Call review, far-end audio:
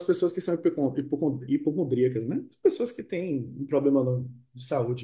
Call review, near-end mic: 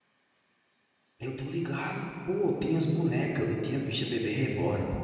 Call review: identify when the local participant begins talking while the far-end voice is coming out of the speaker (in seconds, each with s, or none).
1.2 s